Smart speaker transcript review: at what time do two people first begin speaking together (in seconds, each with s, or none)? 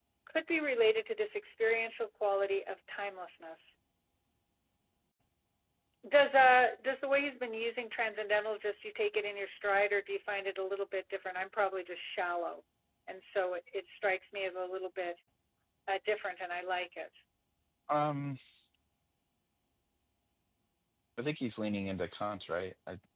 none